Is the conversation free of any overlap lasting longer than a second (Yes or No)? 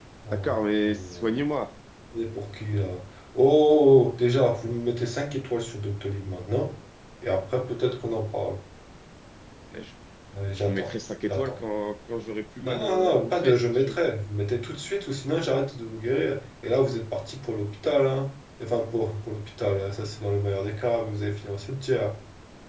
No